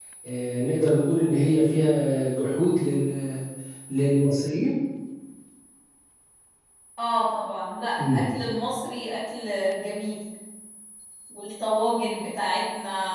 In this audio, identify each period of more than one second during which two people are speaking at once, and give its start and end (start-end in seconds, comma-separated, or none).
none